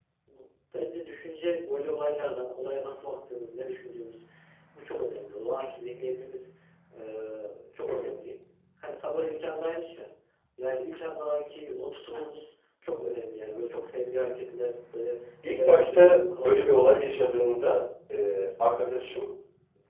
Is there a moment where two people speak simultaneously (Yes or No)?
Yes